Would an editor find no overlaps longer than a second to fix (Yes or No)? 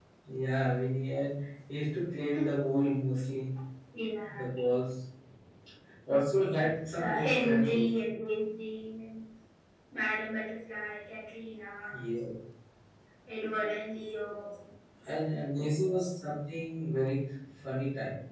No